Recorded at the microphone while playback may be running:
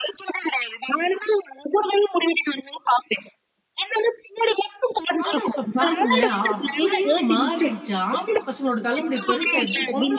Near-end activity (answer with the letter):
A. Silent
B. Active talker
B